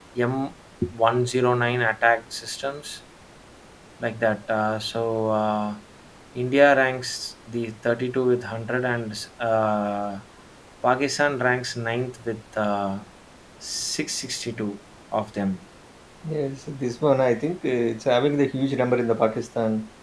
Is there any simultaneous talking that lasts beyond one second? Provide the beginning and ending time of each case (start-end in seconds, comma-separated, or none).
none